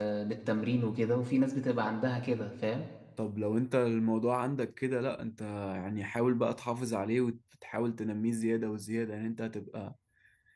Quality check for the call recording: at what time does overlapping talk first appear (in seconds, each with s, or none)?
none